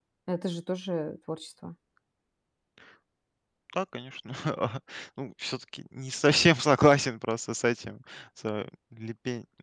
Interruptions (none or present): none